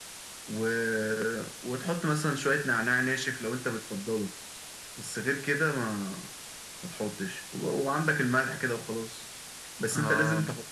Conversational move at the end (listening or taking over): listening